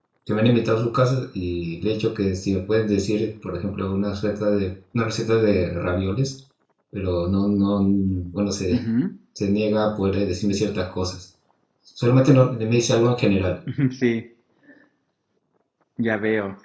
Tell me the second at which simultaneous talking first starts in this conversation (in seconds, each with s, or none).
none